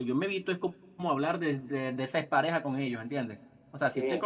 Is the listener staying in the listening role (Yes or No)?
Yes